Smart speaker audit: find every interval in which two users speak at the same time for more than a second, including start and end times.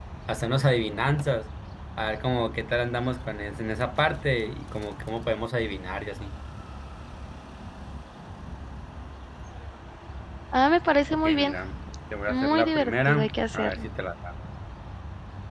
12.3-13.8

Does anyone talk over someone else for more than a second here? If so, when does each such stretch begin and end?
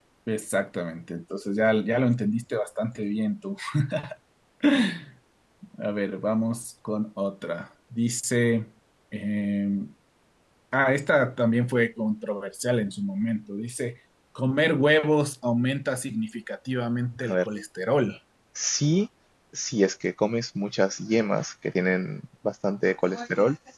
none

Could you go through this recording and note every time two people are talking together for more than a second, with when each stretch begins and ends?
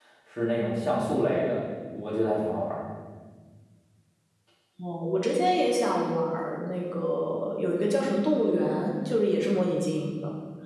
none

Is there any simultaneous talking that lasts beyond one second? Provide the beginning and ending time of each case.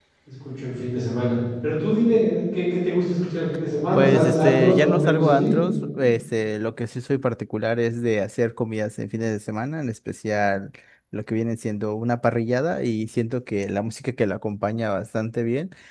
3.9-5.5

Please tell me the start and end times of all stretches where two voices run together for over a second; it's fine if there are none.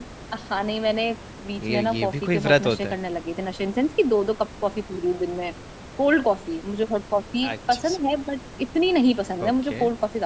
1.6-3.0

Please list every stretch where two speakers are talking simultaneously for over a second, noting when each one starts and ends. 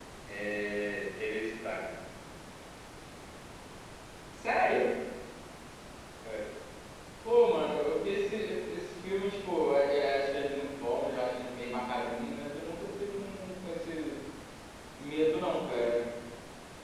none

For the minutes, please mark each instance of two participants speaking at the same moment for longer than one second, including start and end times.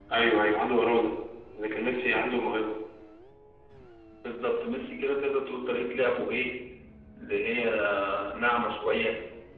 none

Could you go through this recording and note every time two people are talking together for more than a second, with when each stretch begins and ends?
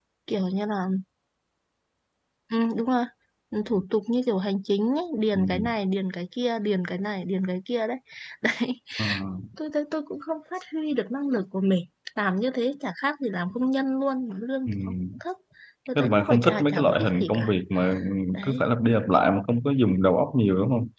16.0-17.5

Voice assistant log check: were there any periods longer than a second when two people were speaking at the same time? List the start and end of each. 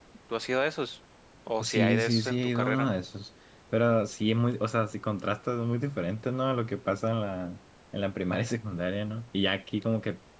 1.6-2.9

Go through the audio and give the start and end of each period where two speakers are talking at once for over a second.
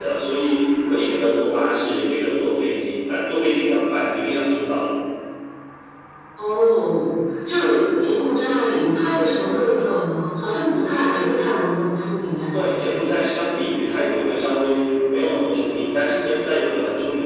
none

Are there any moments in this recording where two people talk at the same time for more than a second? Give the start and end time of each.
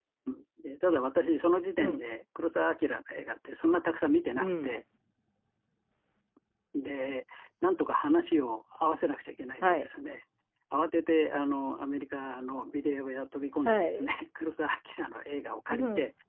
none

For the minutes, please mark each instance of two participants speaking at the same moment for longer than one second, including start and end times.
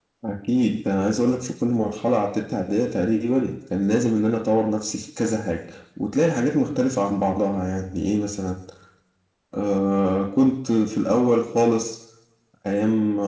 none

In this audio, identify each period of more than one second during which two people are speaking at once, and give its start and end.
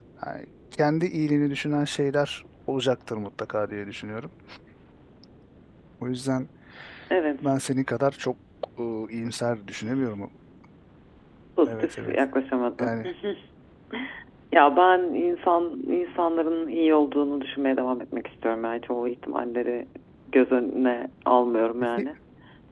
none

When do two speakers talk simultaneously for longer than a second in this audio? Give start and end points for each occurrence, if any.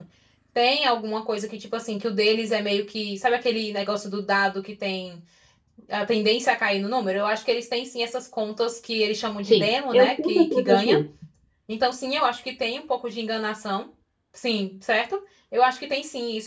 9.4-11.0

